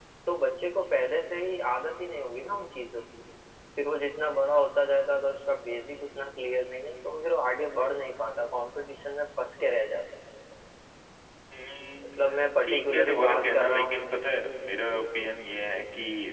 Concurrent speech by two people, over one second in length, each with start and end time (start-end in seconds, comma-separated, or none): 12.6-14.1